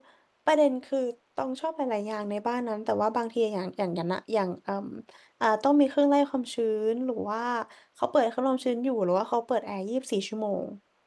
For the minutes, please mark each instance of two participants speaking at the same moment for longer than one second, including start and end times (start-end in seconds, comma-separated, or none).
none